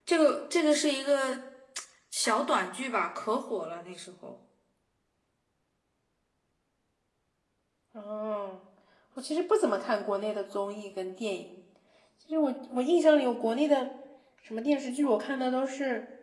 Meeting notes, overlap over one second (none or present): none